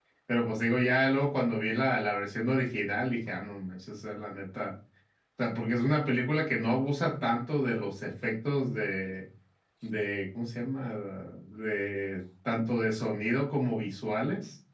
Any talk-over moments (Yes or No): No